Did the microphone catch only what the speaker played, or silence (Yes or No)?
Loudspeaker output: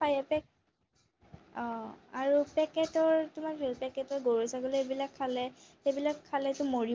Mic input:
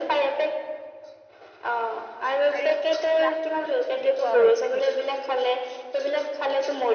No